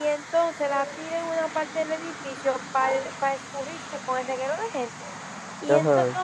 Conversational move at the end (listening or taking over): listening